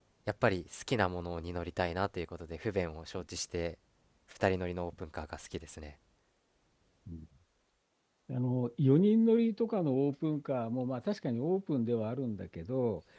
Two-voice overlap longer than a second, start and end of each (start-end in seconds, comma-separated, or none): none